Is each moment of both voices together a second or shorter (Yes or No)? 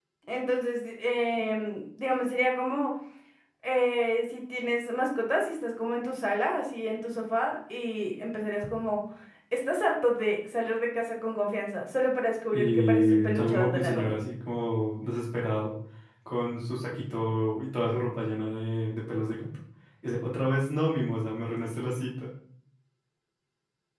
No